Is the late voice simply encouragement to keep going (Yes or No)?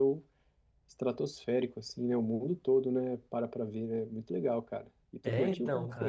No